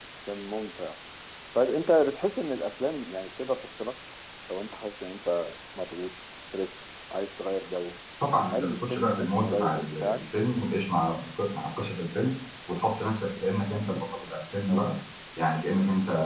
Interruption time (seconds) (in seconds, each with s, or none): 8.5 s